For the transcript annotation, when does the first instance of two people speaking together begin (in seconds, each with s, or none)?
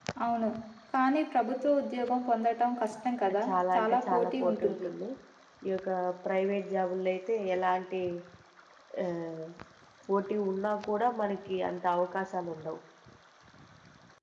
3.3 s